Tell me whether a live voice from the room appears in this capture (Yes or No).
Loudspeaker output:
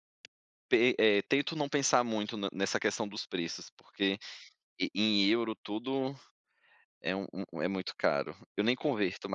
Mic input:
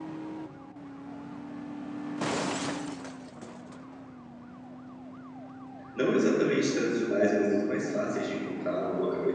Yes